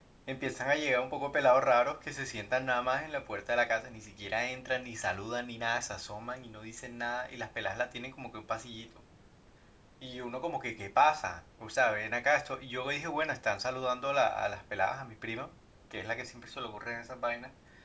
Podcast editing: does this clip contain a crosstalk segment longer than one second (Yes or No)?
No